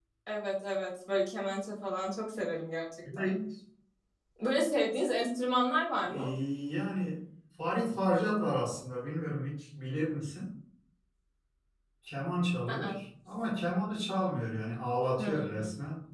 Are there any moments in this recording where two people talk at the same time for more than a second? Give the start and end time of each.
none

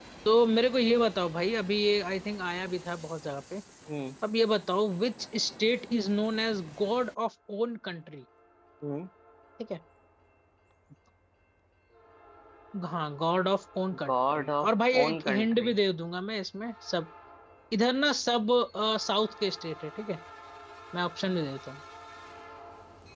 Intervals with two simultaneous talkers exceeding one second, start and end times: 14.1-15.7

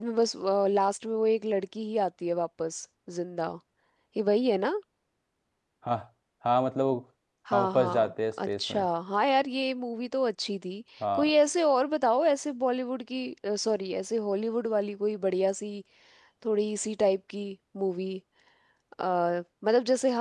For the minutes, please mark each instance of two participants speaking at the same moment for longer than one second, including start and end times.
7.5-8.9

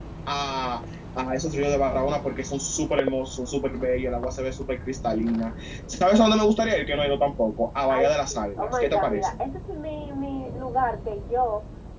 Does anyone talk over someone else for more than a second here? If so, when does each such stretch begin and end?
7.9-9.3

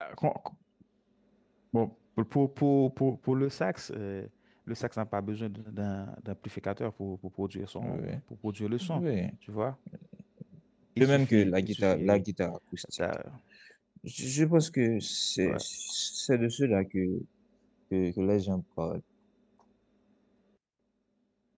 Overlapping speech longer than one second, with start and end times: 11.0-12.2

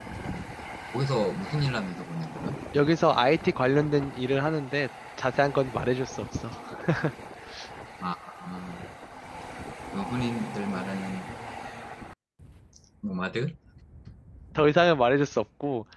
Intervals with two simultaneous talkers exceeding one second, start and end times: none

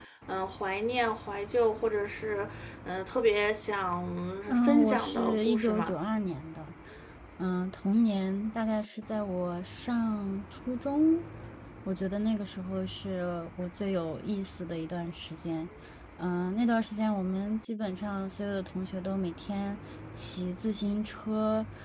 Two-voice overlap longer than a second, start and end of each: 4.6-5.9

